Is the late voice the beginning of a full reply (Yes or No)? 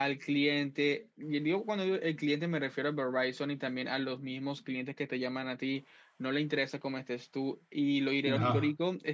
No